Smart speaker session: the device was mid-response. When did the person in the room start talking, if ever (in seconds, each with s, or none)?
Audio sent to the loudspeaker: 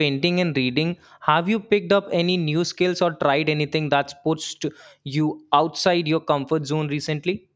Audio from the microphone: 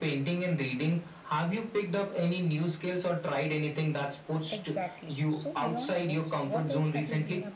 4.5 s